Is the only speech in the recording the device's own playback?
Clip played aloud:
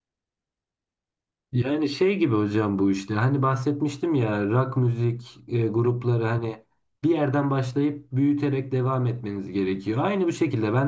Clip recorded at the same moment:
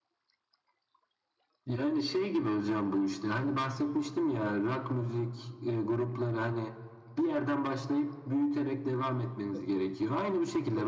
No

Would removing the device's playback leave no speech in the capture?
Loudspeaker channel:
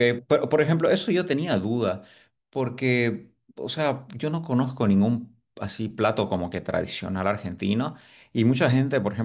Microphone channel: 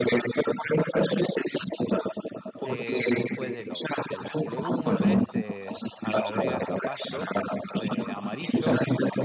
No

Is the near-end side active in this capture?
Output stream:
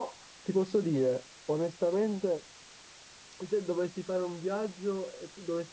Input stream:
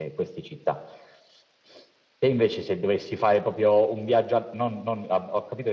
Yes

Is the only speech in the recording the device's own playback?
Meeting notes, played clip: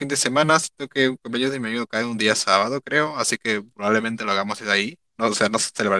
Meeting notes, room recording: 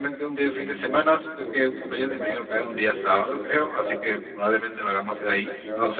No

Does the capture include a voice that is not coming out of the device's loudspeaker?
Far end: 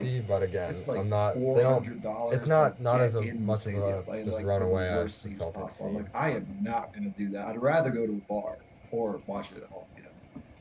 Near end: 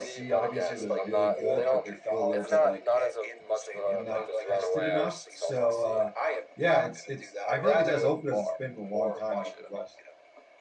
Yes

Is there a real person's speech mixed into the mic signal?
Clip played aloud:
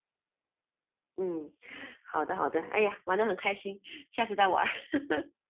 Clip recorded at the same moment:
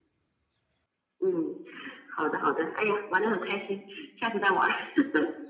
No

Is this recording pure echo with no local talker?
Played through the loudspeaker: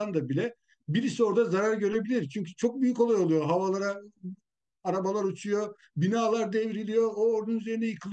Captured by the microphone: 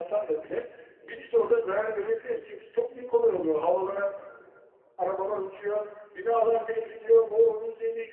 Yes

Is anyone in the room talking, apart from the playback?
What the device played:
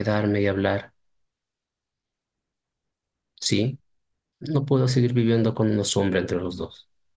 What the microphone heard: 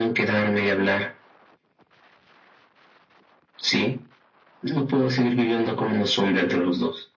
No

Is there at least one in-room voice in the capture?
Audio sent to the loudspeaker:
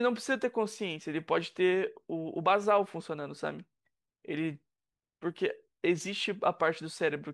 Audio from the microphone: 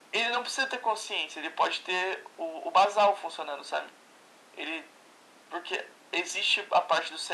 No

